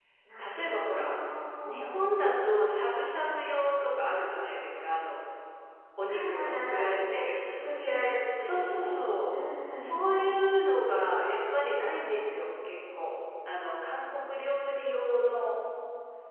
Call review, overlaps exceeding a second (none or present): present